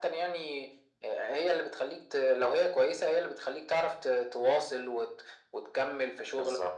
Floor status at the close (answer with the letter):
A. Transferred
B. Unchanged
B